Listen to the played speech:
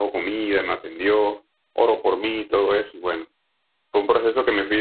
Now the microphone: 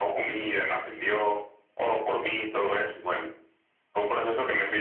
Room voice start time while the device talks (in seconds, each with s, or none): none